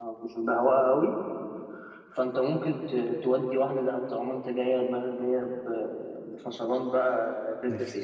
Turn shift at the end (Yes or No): Yes